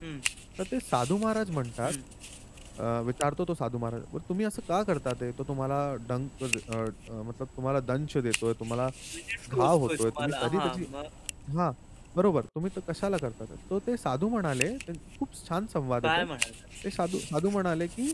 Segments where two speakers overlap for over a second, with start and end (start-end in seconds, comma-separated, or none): 9.5-10.8